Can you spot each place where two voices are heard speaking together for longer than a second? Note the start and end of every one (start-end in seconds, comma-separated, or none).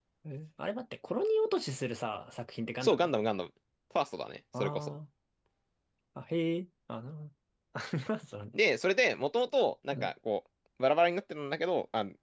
none